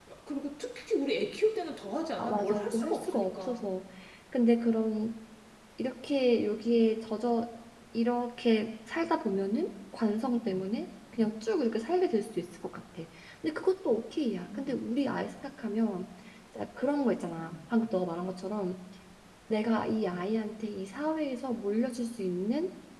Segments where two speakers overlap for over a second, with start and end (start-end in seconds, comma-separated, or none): 2.2-3.6